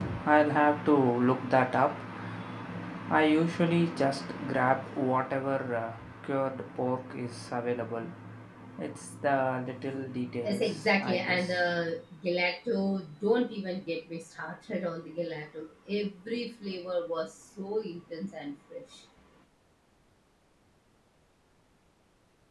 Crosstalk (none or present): present